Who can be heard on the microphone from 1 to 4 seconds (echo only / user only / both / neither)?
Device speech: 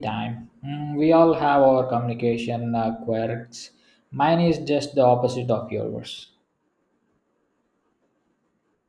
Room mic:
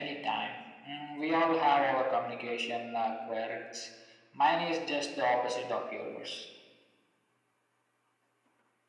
echo only